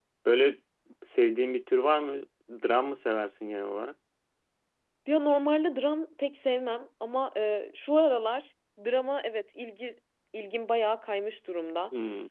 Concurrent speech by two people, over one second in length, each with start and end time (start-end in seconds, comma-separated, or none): none